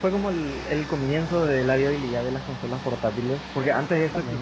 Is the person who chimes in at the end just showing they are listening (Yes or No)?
Yes